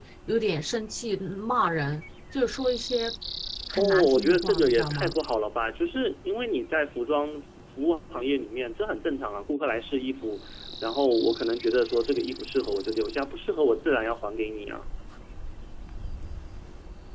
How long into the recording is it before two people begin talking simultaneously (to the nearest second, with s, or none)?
4 s